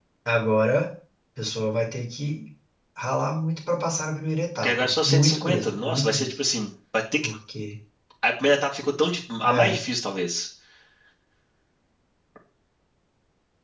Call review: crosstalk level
present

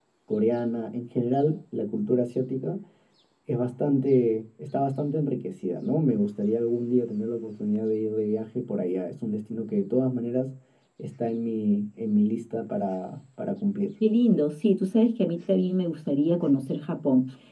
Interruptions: none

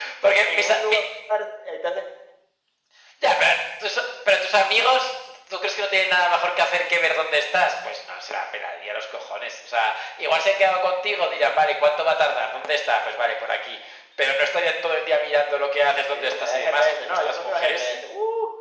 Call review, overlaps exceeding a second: present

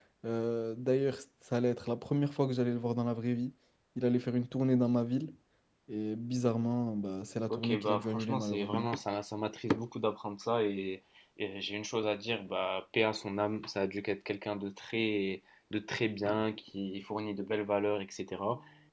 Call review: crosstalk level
present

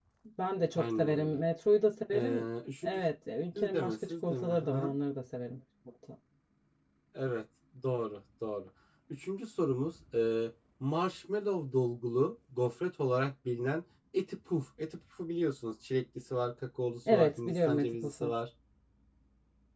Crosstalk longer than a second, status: present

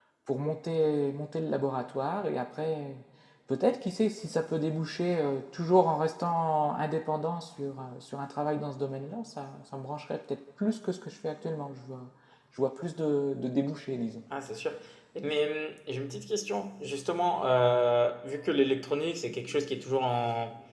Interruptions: none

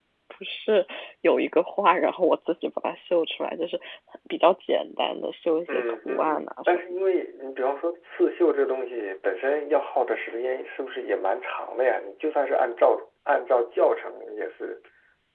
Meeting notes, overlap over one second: present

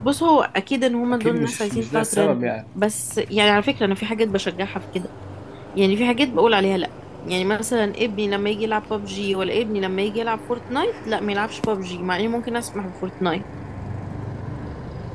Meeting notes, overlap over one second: present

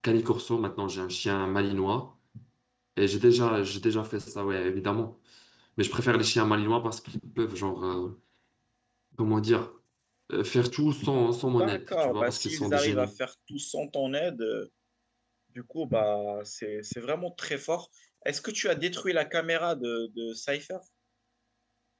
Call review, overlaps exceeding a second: present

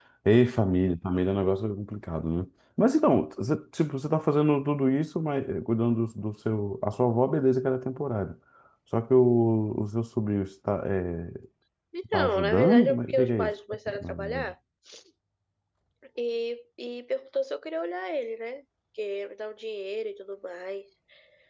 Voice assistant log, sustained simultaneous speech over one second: present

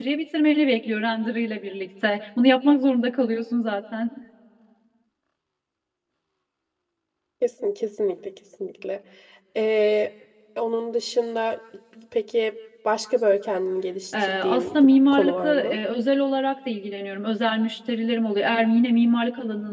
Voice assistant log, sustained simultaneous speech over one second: present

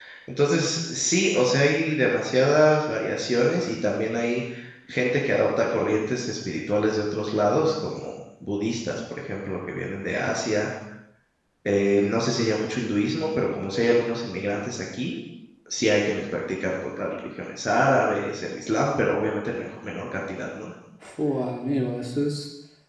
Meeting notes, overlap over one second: none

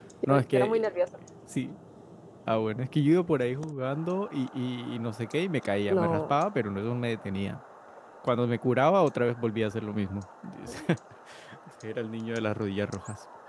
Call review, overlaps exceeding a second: none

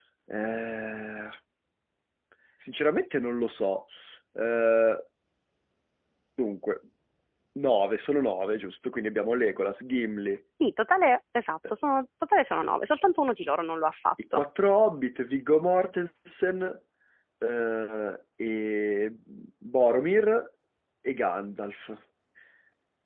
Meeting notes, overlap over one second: none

